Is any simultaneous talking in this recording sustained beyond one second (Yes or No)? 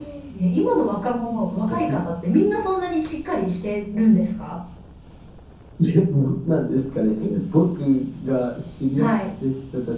No